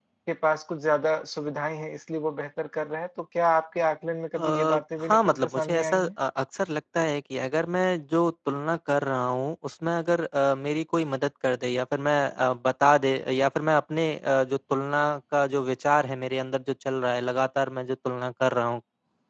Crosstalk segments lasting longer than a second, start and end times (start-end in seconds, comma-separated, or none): 4.3-6.1